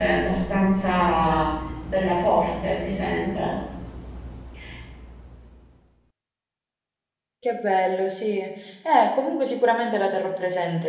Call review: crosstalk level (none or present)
none